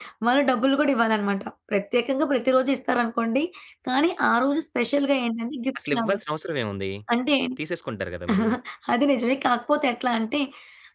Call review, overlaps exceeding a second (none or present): none